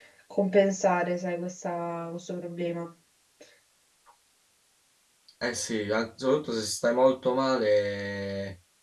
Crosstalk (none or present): none